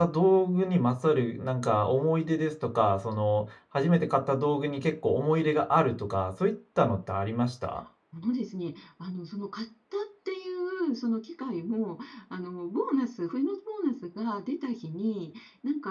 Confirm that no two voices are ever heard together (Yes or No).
Yes